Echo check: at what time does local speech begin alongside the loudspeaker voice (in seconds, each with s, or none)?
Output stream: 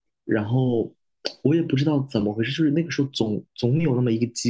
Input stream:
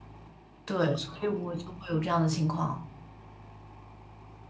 0.7 s